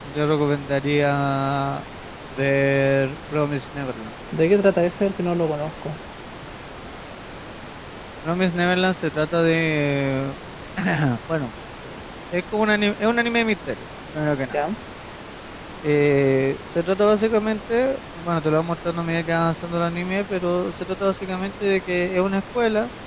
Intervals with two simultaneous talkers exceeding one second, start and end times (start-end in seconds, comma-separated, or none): none